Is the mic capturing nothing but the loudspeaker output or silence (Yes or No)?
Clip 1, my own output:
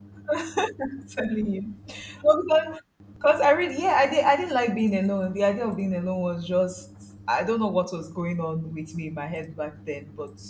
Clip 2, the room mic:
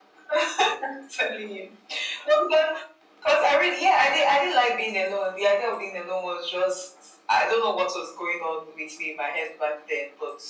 Yes